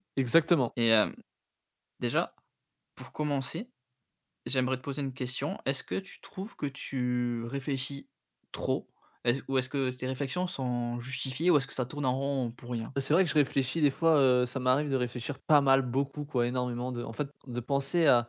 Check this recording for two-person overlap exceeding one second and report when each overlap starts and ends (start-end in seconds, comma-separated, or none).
none